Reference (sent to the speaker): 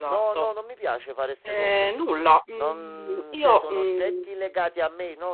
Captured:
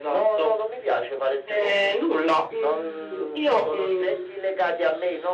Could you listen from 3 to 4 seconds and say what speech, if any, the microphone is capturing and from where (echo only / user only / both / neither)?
echo only